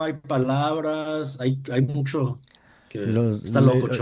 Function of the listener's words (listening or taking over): taking over